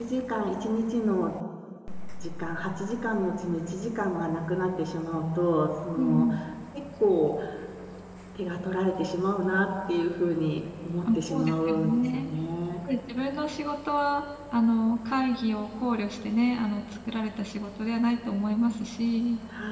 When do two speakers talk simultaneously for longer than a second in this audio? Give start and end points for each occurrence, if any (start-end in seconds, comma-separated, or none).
11.0-12.3